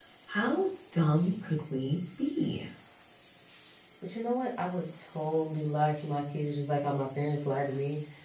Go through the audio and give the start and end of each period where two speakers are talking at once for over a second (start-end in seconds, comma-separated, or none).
none